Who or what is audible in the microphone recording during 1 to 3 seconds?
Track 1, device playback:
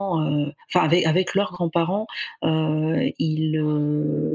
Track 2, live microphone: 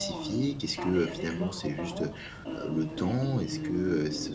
both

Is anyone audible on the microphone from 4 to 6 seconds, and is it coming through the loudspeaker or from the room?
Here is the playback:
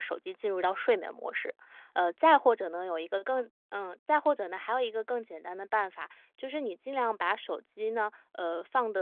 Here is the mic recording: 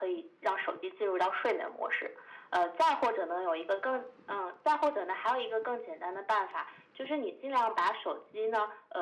echo only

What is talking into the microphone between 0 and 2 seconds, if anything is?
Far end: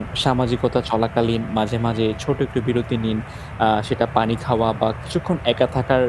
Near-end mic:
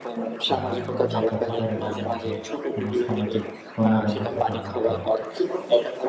both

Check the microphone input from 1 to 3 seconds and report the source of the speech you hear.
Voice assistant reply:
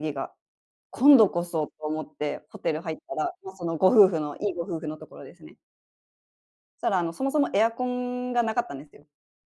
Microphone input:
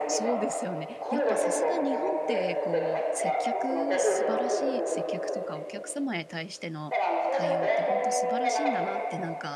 both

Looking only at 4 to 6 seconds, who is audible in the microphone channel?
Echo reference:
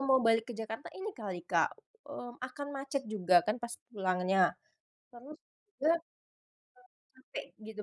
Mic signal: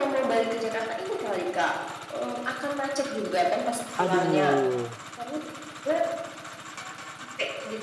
both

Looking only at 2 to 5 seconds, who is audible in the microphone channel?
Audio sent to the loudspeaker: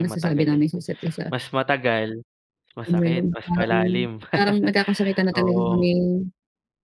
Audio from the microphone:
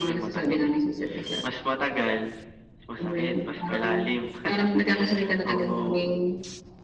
echo only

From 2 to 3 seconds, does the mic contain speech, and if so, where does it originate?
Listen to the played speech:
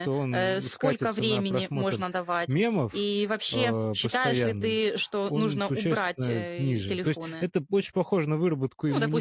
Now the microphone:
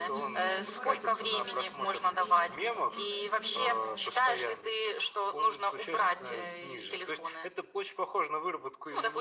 both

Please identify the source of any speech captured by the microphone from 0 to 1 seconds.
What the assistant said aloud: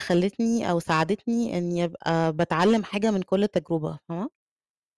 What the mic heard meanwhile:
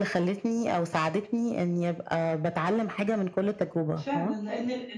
echo only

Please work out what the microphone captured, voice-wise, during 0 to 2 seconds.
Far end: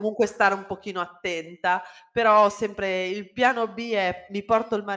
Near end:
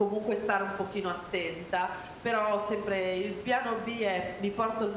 echo only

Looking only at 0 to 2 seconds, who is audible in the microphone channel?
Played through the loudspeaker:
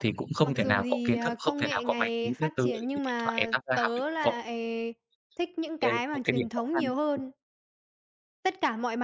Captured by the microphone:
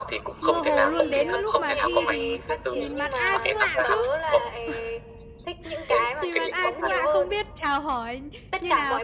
both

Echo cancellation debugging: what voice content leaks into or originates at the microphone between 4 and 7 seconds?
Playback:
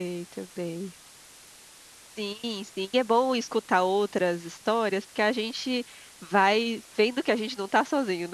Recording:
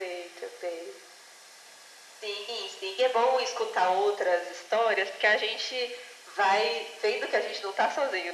echo only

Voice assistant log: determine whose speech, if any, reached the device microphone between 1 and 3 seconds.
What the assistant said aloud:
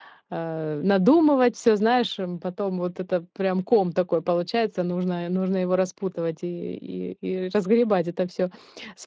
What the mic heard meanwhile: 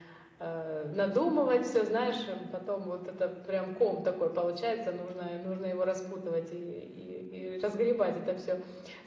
echo only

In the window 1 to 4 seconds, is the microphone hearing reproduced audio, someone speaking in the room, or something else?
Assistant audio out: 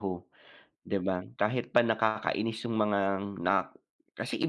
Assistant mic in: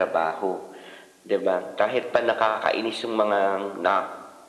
echo only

